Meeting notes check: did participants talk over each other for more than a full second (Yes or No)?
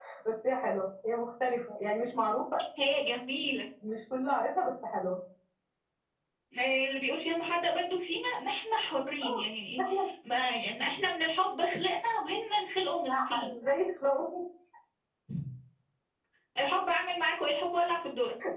No